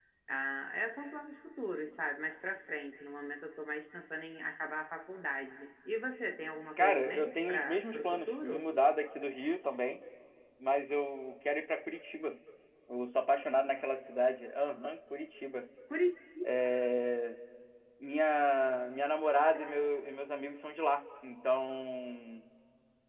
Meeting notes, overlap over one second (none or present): present